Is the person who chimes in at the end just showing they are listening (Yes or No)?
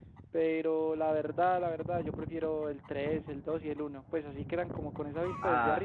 No